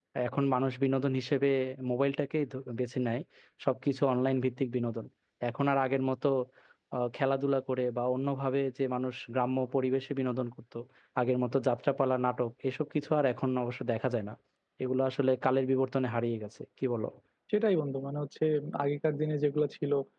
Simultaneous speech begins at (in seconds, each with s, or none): none